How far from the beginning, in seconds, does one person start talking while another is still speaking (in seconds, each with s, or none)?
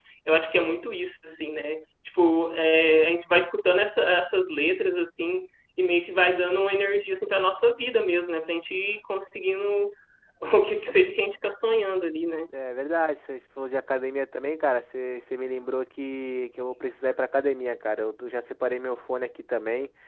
none